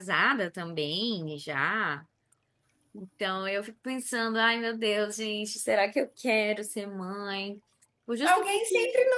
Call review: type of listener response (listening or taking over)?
taking over